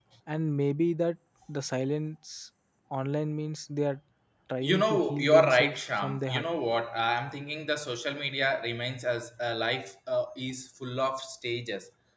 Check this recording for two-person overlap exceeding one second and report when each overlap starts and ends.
4.6-6.5

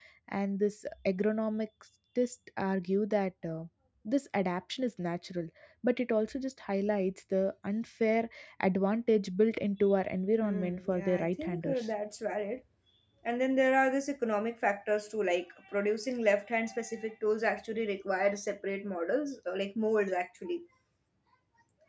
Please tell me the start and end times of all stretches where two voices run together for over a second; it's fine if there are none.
10.4-11.8

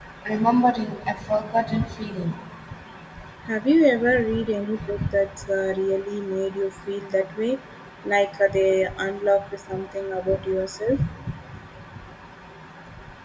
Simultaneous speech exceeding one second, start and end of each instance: none

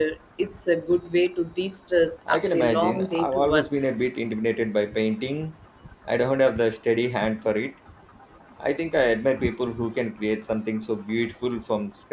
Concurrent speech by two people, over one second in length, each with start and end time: 2.3-3.7

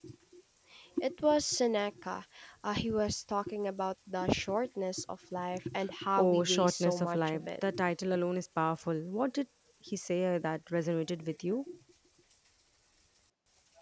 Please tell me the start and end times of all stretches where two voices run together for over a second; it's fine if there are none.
6.2-7.5

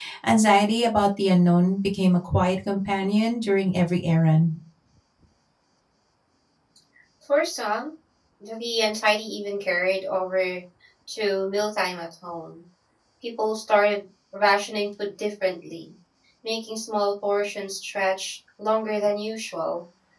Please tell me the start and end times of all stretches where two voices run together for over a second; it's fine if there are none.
none

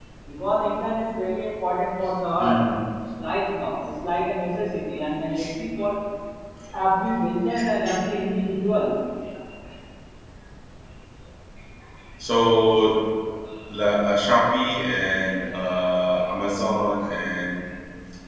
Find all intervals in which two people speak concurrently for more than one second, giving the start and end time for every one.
none

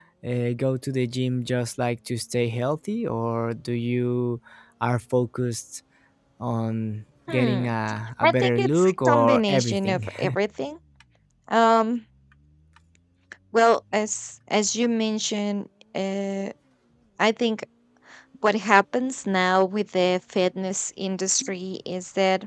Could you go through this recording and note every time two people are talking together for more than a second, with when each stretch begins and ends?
8.2-10.1

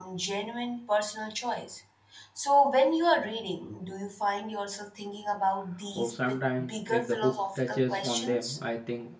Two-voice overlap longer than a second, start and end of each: 6.0-8.6

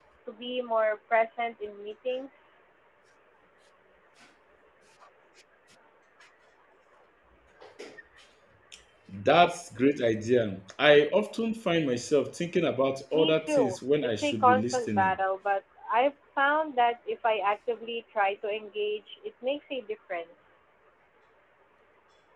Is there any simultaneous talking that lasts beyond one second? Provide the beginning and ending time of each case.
13.1-15.2

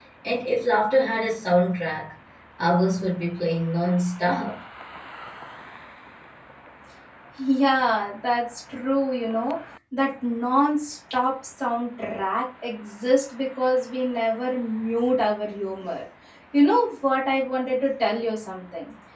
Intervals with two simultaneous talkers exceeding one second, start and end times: none

